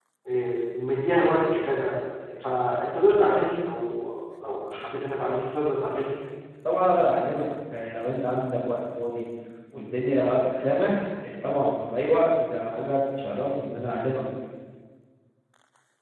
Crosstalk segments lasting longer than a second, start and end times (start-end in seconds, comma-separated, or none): none